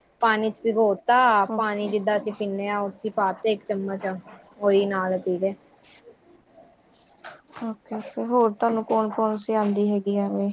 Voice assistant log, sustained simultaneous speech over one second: none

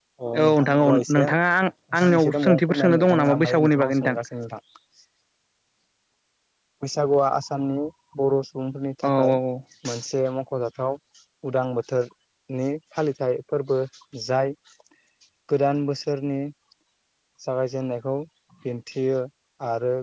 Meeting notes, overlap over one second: present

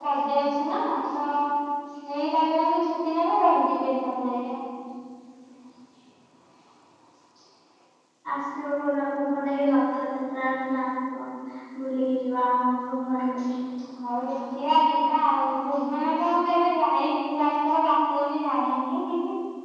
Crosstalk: none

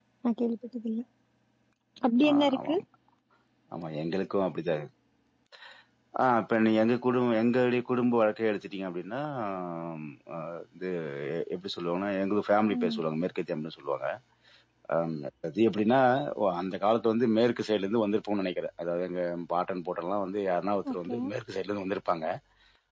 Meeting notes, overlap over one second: none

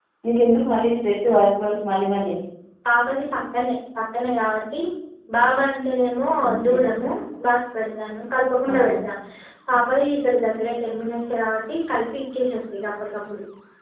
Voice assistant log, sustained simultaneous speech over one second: none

